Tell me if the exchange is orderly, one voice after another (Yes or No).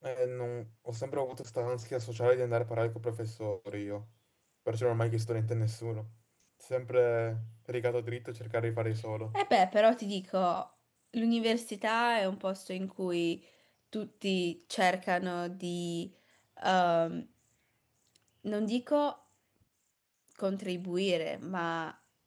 Yes